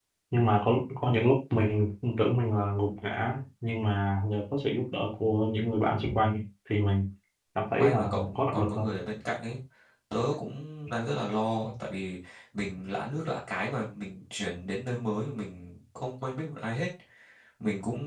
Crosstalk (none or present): present